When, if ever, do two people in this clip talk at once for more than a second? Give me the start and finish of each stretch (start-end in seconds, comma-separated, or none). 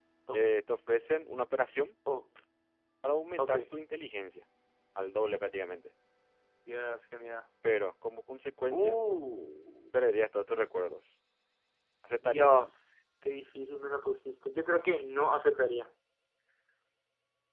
none